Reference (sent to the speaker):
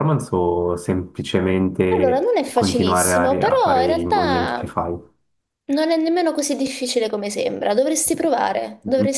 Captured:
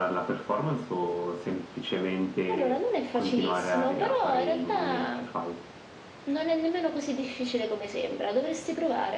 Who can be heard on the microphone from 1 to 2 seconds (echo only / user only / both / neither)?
echo only